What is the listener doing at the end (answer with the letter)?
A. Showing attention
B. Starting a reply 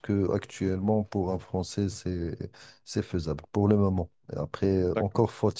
A